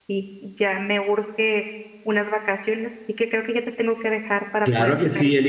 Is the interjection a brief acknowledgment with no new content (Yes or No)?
No